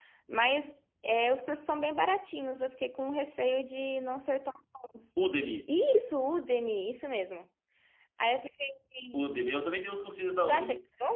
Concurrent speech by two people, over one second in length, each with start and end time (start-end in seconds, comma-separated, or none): none